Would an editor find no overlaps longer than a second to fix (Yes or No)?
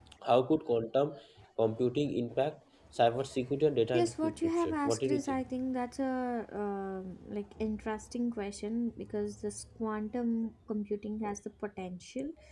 No